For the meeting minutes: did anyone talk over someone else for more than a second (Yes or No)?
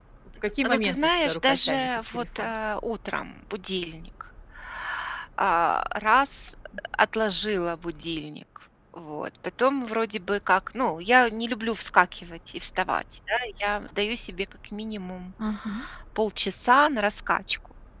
Yes